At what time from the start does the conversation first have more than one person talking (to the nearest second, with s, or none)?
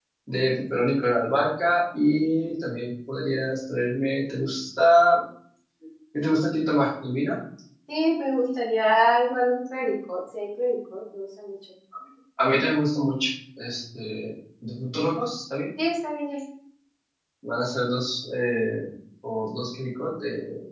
none